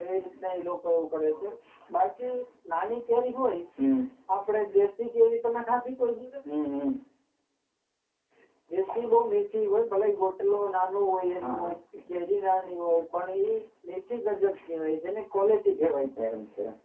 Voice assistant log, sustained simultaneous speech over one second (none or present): none